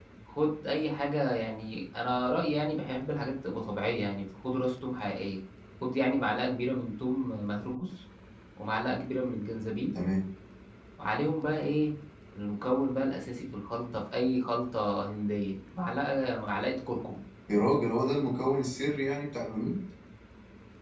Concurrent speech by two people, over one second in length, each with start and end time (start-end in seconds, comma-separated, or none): none